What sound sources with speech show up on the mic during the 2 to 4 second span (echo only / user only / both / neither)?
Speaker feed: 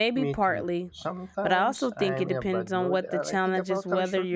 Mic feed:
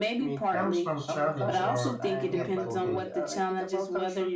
both